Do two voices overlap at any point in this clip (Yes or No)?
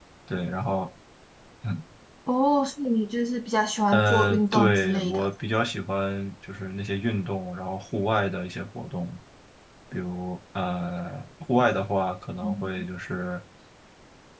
Yes